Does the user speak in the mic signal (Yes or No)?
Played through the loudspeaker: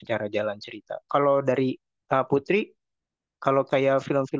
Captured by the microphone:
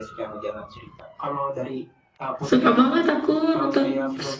Yes